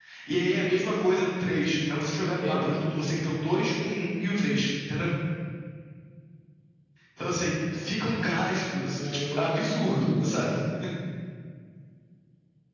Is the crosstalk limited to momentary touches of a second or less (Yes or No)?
No